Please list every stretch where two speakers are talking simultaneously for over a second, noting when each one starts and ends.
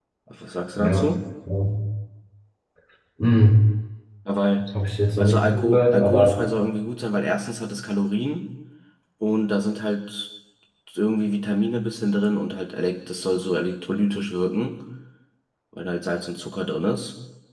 5.2-6.4

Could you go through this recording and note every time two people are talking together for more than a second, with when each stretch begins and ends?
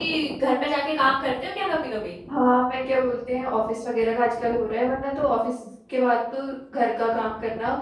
none

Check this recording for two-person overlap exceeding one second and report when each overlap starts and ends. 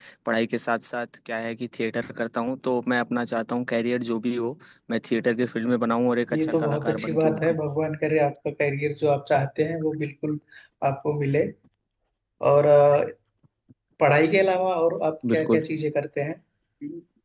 6.3-7.6

